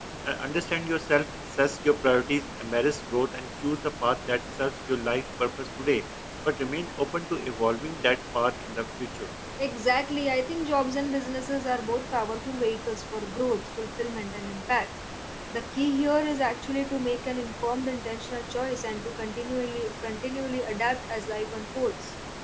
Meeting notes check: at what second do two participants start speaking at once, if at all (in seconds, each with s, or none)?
none